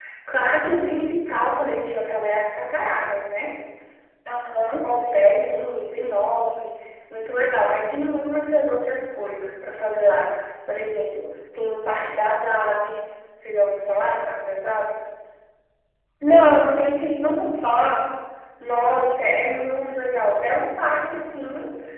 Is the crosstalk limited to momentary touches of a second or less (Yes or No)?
Yes